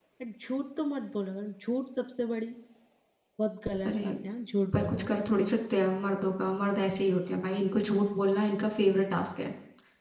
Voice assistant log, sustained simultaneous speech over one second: none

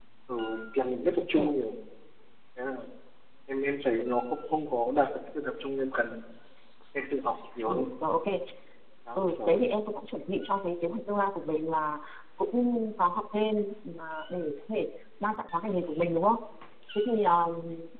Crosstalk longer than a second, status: none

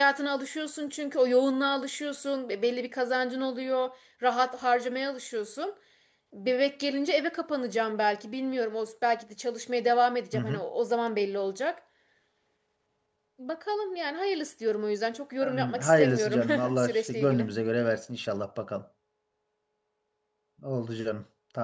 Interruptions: present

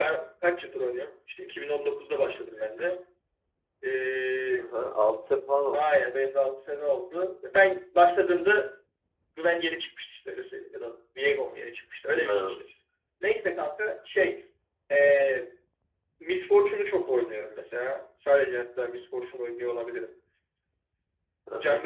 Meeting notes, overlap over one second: none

